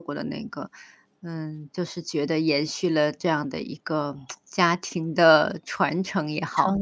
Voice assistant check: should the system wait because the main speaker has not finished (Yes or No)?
No